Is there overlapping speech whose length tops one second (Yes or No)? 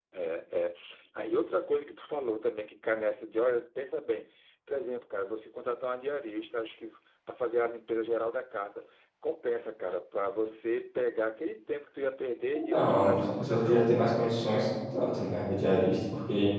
Yes